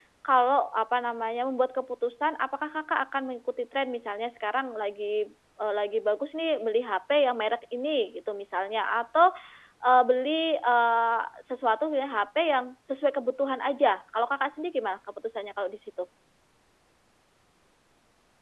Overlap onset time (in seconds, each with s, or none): none